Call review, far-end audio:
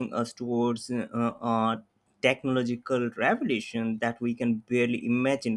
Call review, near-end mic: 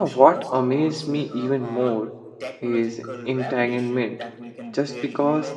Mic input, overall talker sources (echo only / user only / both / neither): both